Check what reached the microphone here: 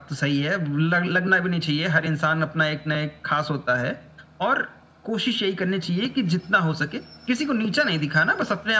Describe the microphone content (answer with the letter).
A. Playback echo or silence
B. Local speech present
A